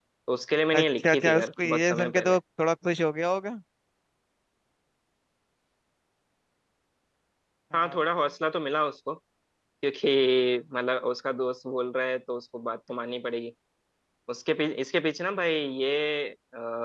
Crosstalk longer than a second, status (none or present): present